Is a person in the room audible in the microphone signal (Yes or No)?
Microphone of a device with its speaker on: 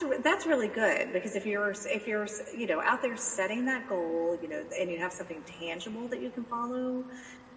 No